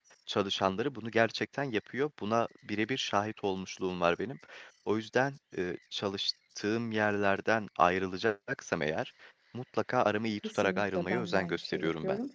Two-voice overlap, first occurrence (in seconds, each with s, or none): 10.4 s